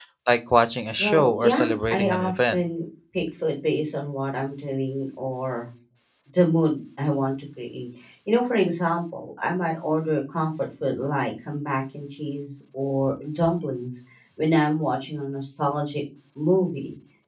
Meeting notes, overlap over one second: present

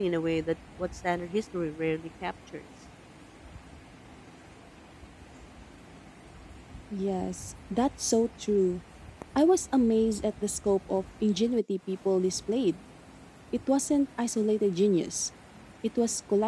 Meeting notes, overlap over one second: none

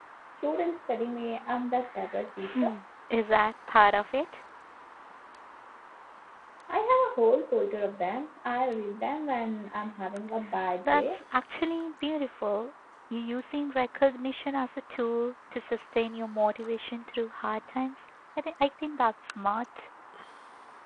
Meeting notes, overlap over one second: none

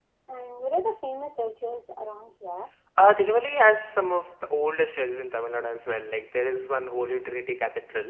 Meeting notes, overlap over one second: none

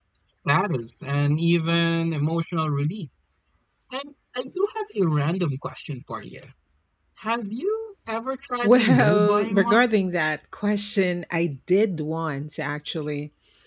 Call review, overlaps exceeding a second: present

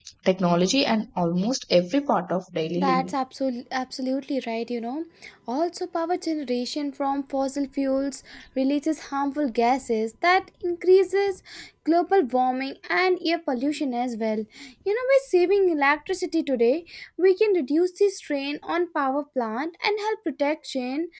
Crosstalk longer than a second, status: none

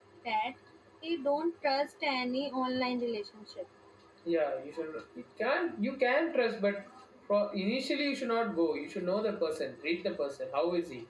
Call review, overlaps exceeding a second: none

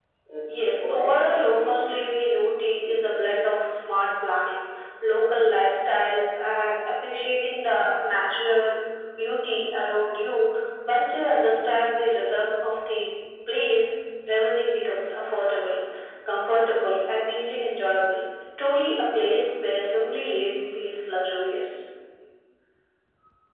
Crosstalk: present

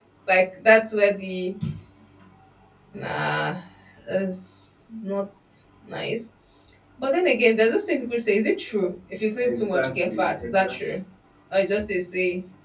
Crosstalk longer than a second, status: present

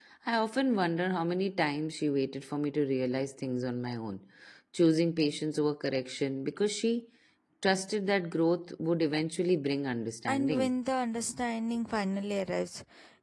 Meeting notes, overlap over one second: none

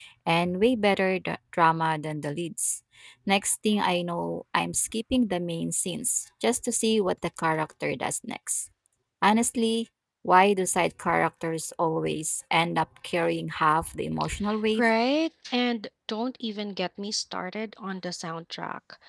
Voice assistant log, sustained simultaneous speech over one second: none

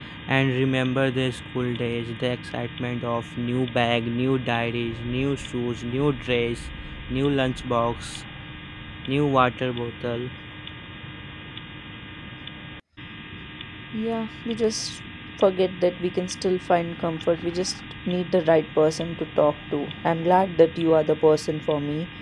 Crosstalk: none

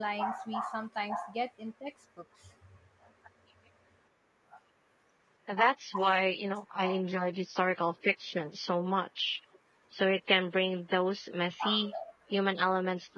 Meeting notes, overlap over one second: none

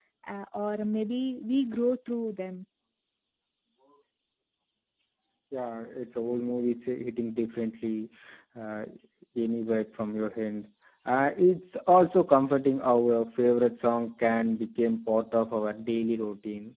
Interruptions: none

